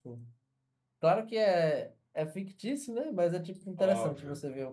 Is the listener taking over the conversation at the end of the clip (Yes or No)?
No